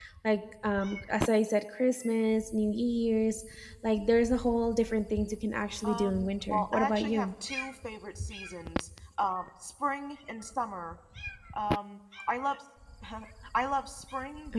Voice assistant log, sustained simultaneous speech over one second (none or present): present